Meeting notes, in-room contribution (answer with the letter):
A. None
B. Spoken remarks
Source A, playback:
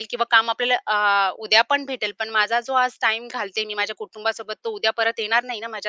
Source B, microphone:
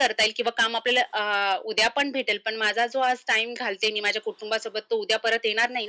A